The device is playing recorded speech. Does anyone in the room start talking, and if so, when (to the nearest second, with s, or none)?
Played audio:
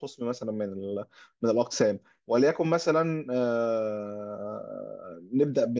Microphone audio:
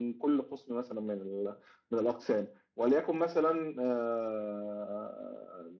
none